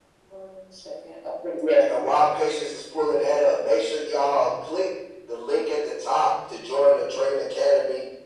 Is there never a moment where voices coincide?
Yes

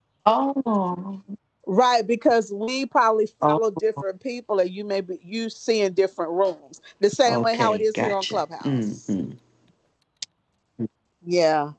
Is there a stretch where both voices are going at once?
Yes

